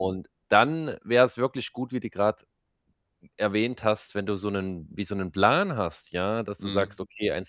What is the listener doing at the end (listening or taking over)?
listening